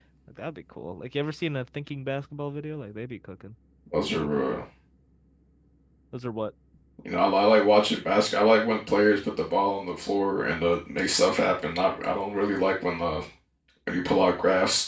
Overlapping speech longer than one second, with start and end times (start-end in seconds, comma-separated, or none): none